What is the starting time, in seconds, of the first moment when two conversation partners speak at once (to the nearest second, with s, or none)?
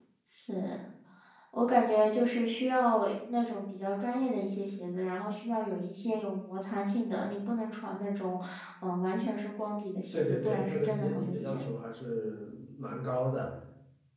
10 s